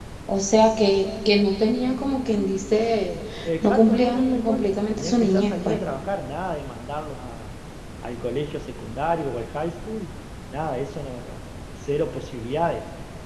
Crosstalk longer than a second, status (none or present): present